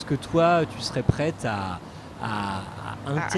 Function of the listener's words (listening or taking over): listening